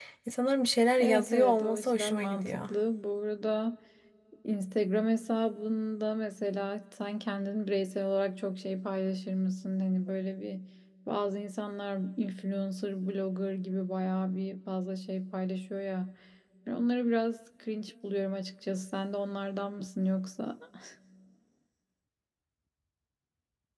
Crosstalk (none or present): present